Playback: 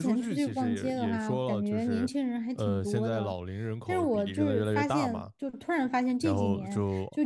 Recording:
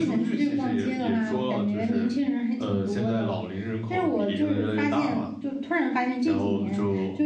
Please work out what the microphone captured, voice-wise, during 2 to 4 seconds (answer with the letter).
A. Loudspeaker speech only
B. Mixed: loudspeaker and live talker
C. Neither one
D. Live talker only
A